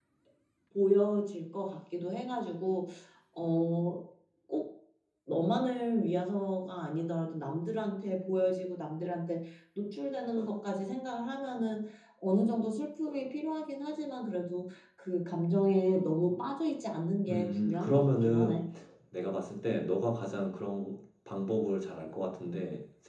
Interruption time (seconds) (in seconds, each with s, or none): 17.2 s